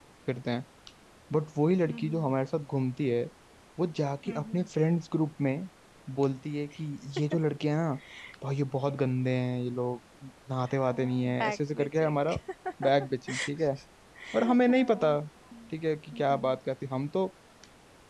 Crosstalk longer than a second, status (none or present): present